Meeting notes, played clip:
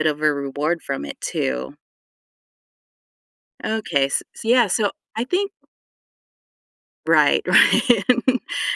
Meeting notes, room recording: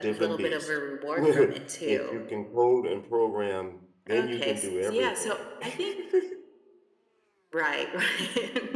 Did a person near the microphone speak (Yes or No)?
Yes